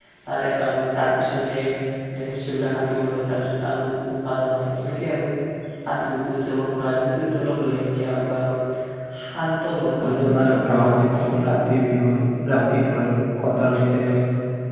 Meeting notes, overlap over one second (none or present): present